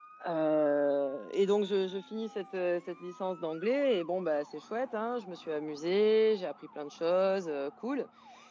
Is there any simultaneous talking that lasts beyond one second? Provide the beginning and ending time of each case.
none

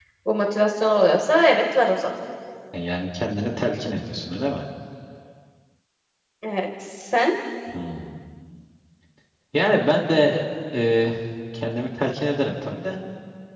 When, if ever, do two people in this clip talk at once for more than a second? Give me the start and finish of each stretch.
none

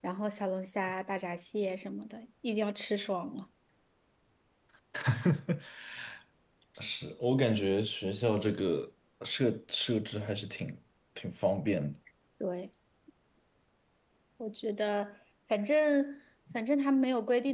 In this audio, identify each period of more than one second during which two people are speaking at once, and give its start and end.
none

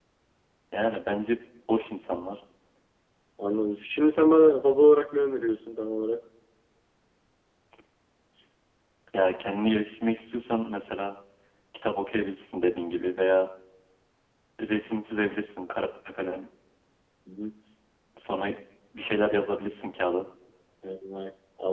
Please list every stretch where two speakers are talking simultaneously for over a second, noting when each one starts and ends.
none

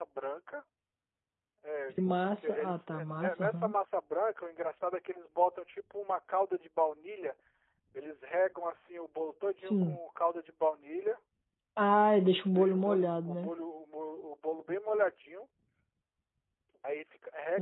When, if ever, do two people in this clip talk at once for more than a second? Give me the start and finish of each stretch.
2.4-3.7, 12.2-13.5

